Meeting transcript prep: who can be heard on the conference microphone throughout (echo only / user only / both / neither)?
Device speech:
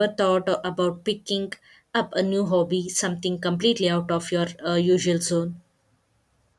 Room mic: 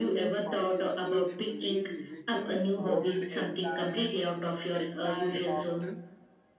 both